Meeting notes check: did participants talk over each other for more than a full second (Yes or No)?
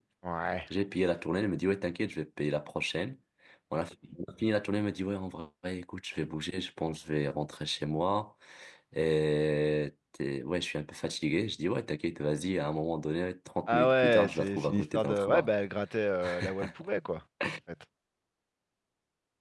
Yes